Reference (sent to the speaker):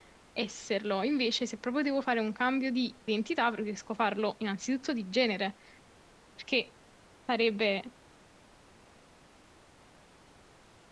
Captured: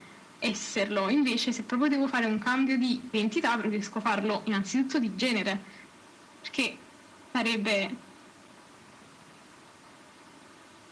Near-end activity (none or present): none